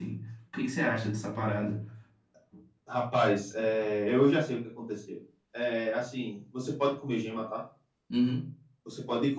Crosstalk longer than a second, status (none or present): none